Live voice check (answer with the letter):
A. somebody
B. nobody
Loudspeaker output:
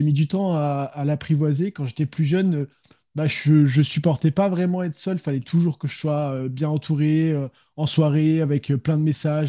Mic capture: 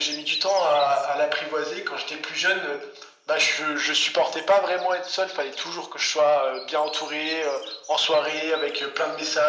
B